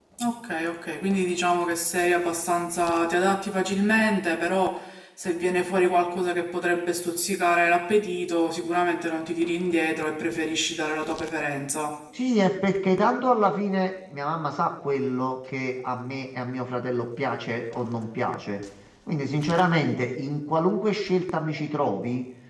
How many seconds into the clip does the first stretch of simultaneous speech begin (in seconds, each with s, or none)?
none